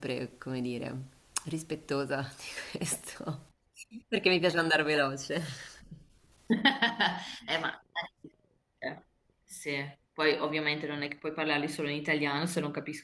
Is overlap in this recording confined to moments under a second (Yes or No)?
Yes